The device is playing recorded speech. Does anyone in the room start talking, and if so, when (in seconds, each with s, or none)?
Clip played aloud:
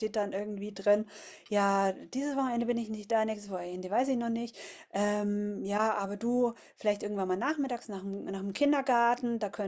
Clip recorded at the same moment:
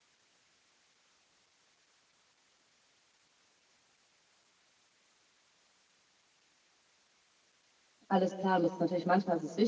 8.1 s